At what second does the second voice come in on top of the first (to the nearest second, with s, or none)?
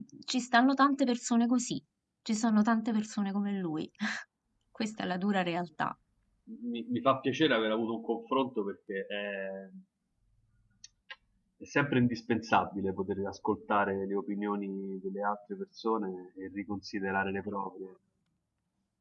none